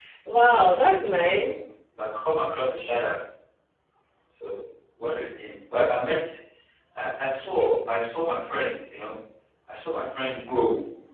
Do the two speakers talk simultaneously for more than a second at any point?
No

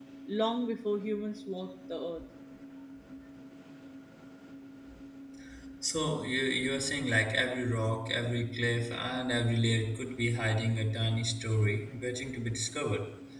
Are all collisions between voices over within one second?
Yes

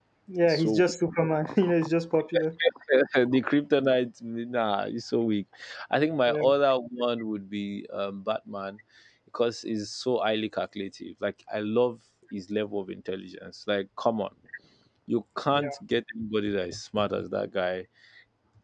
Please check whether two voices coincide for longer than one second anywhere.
No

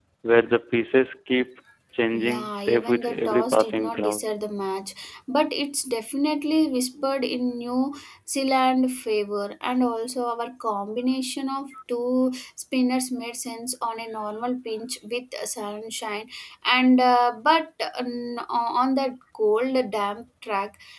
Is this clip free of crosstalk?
No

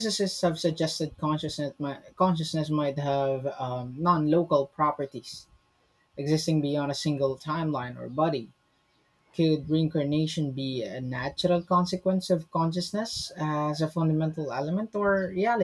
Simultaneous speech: No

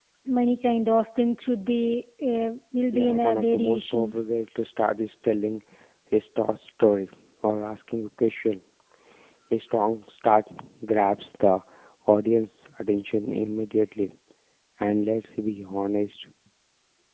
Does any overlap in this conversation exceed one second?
Yes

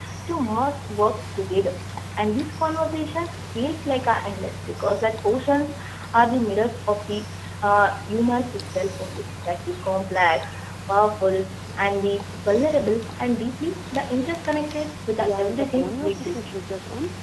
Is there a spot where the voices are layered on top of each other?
Yes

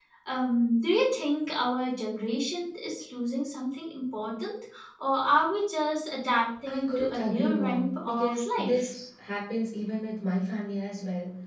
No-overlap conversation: No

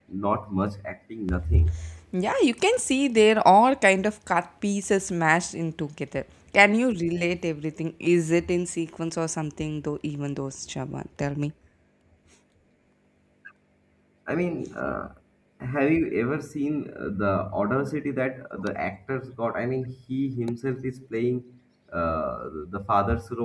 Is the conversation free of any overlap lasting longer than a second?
Yes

